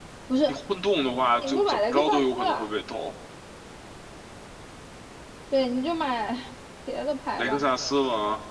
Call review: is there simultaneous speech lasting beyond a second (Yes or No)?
Yes